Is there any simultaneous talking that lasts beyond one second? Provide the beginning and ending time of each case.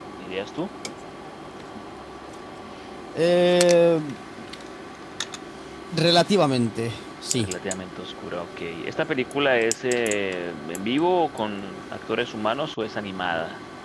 none

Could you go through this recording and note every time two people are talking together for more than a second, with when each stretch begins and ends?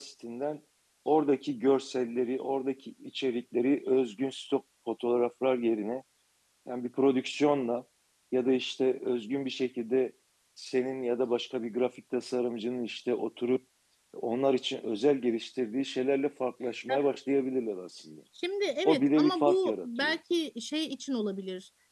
18.9-20.2

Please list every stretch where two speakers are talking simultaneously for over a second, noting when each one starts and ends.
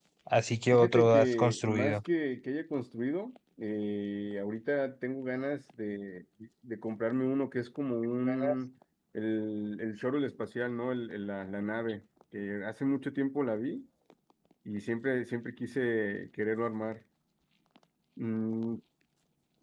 0.7-2.0

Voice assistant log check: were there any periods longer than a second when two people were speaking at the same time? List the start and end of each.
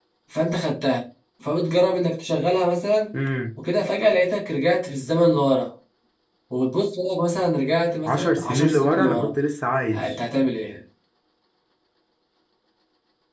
8.0-9.3

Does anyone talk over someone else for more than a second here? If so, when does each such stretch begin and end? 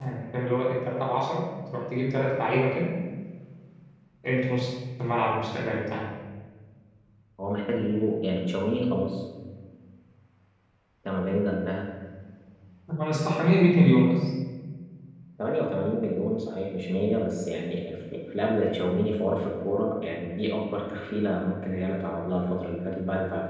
none

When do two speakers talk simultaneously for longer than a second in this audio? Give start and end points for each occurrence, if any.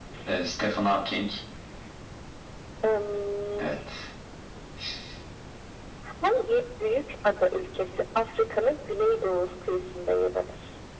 none

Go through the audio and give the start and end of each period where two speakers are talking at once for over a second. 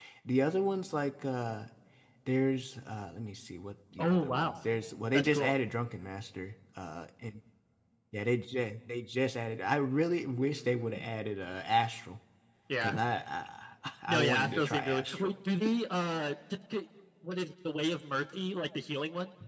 14.1-15.3

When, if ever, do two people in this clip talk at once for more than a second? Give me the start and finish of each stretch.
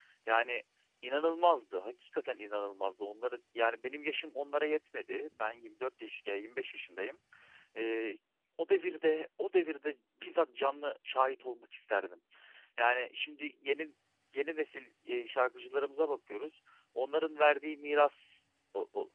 none

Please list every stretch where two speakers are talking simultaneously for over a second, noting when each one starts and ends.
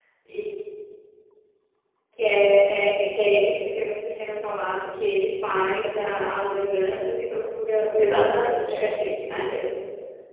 8.0-9.6

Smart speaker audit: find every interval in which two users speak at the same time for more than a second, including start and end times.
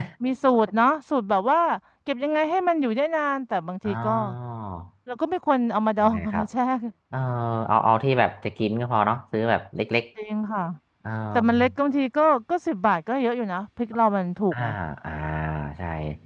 none

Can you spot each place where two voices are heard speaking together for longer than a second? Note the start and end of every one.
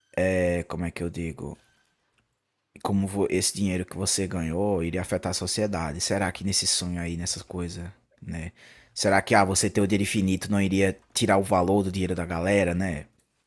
none

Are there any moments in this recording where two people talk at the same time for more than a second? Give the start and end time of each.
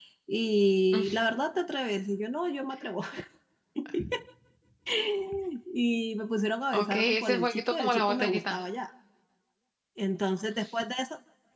6.7-8.6

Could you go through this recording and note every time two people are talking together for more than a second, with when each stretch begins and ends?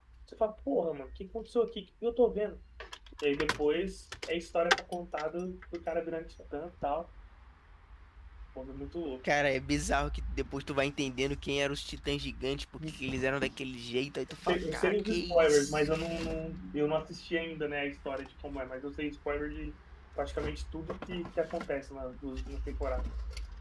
14.5-15.9

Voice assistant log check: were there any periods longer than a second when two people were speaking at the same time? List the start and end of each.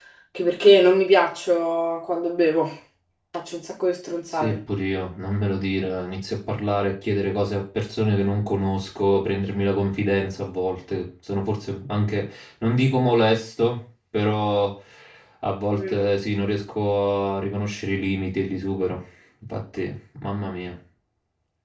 none

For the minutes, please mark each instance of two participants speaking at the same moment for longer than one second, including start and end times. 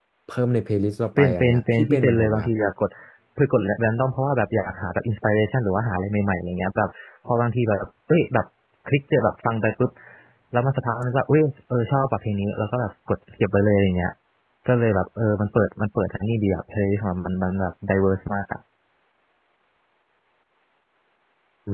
1.2-2.5

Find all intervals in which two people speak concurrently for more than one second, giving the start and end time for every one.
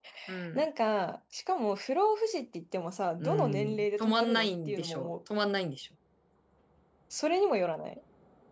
3.2-5.1

